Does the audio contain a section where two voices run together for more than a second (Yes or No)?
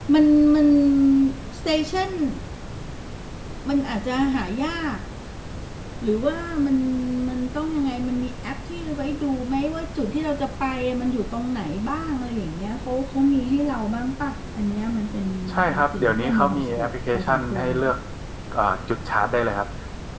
Yes